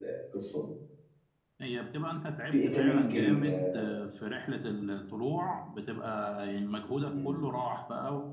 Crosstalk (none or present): present